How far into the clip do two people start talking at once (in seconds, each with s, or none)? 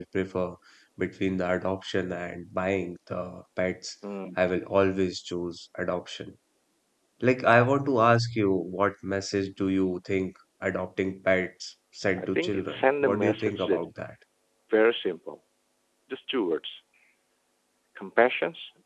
12.2 s